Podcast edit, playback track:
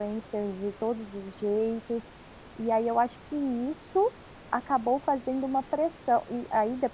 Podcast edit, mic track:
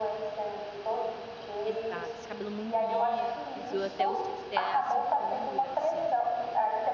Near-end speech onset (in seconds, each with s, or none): 1.6 s